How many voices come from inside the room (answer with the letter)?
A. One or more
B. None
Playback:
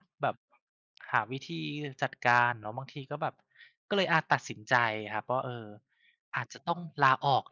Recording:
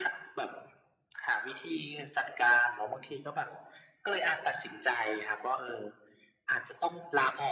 B